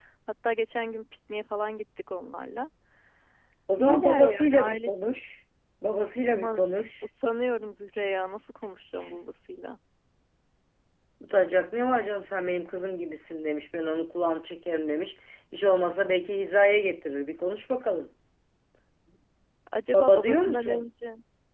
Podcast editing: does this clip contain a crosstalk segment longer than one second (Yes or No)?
Yes